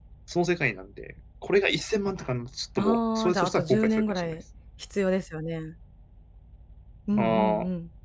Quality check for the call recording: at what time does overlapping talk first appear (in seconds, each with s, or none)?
2.8 s